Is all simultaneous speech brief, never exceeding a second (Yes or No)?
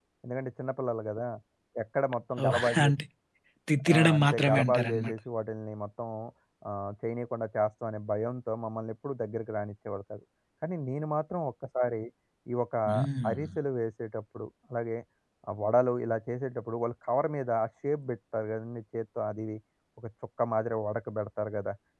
No